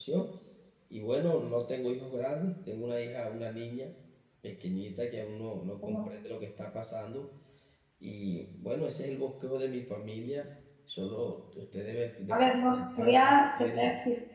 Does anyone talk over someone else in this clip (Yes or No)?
Yes